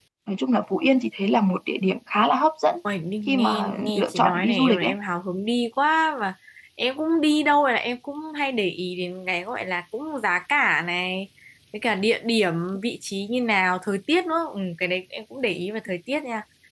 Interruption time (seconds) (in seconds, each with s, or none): 3.3 s